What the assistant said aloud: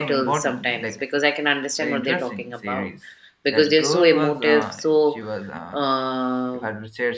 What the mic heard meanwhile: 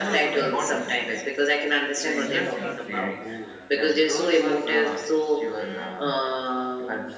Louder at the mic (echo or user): echo